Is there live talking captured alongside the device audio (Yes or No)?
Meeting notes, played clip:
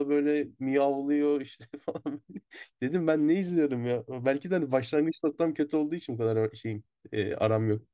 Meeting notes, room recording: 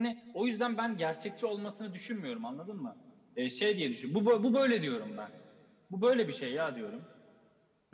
Yes